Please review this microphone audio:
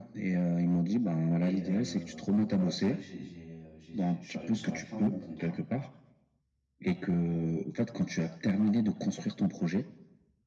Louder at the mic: echo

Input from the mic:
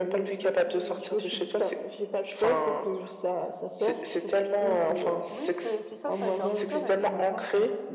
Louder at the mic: echo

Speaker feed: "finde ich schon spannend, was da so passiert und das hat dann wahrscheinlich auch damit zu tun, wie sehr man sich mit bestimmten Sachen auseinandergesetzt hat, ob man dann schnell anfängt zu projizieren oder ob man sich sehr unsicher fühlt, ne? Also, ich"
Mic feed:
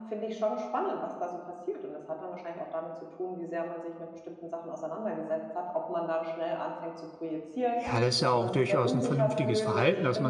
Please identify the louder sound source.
user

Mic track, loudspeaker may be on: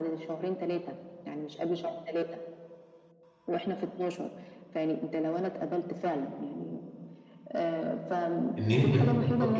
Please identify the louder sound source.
user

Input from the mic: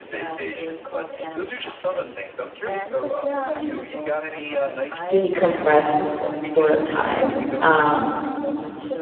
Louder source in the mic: user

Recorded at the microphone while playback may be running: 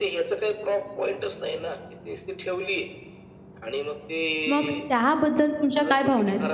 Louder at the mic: user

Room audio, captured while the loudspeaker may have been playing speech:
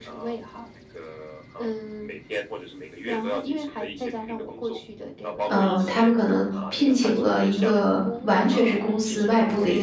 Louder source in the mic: user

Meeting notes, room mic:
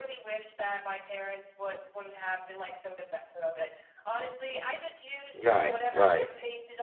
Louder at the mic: user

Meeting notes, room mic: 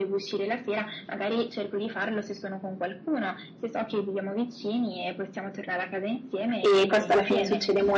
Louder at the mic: user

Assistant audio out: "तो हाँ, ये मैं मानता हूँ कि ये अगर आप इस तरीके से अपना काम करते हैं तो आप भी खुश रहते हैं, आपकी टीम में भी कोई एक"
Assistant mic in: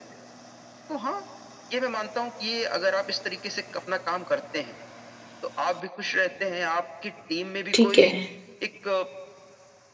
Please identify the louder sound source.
user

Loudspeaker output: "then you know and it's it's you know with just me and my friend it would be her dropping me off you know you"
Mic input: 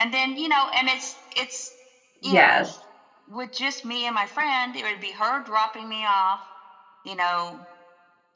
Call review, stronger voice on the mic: user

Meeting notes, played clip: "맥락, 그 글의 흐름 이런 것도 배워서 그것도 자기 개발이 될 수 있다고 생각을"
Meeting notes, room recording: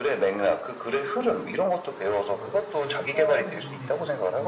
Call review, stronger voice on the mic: echo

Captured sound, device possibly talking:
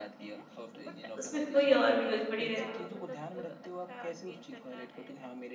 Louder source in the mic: user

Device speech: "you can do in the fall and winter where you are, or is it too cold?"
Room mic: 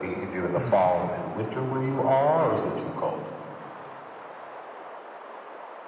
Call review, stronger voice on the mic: echo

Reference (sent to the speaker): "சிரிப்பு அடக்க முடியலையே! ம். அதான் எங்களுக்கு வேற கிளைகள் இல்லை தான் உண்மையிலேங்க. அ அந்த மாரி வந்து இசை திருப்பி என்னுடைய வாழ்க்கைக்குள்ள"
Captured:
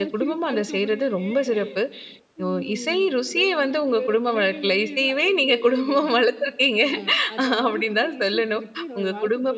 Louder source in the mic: user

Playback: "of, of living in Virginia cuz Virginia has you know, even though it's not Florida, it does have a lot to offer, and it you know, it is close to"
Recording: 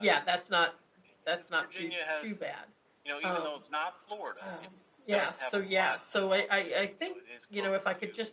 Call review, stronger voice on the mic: user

